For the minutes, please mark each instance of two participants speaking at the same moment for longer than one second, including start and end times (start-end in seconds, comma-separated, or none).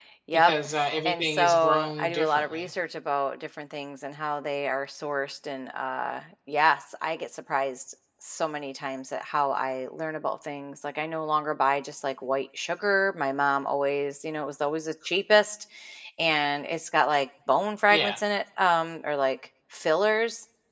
1.0-2.7